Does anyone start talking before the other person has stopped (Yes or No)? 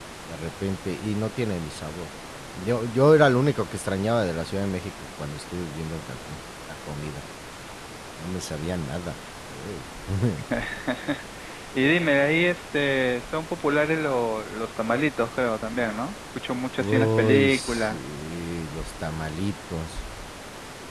Yes